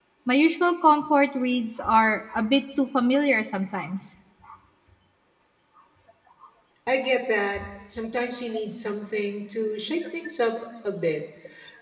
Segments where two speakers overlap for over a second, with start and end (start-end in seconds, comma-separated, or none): none